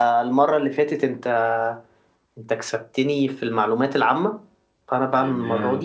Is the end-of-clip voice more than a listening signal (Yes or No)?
No